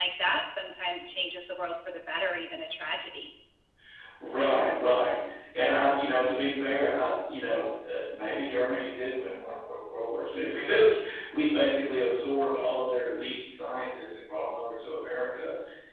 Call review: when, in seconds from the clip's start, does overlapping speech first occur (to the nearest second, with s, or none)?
none